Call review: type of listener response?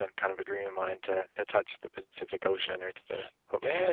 taking over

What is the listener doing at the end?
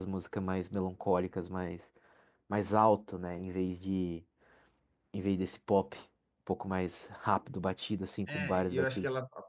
taking over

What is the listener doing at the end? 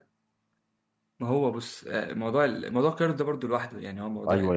taking over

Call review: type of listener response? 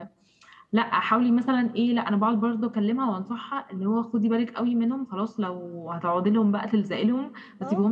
listening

